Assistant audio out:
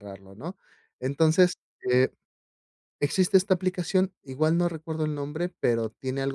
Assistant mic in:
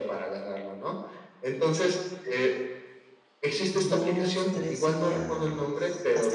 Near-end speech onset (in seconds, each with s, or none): 3.7 s